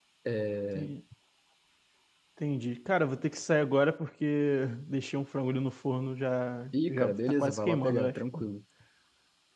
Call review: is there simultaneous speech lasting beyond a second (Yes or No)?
Yes